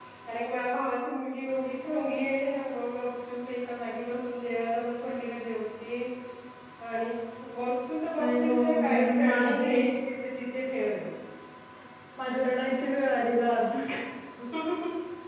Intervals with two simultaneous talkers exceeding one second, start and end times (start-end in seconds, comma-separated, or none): 8.2-9.7